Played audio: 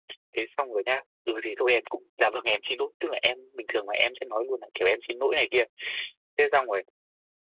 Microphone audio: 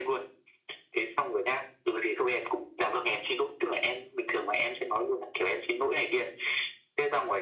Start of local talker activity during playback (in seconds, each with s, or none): none